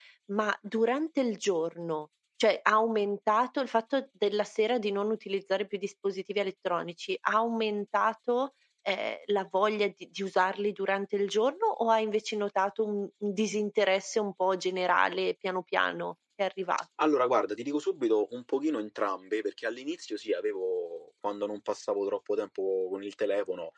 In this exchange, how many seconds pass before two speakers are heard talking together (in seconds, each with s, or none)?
none